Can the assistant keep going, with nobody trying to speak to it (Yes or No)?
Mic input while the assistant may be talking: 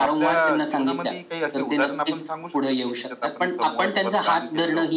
No